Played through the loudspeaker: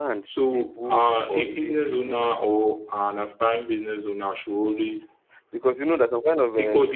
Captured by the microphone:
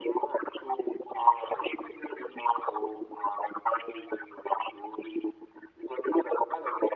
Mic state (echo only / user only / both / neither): echo only